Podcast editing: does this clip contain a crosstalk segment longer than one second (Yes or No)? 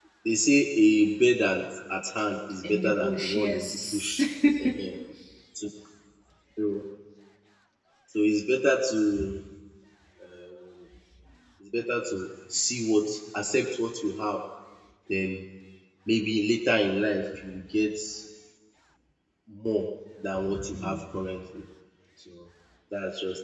Yes